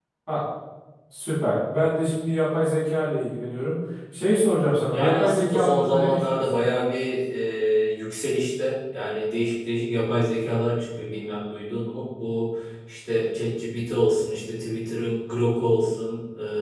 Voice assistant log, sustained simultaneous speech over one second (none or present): present